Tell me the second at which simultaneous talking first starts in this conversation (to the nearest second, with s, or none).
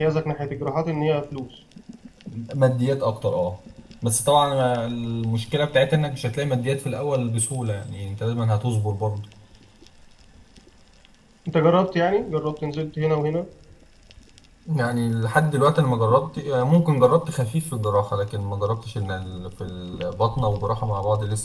none